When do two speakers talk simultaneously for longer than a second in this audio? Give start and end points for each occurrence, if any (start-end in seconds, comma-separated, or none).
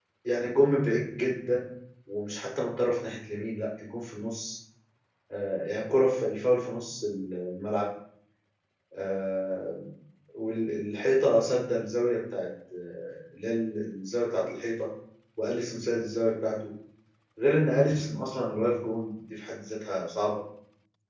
none